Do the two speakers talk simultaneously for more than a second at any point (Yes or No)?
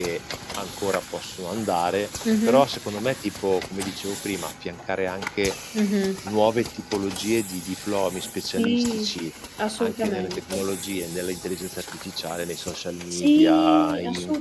Yes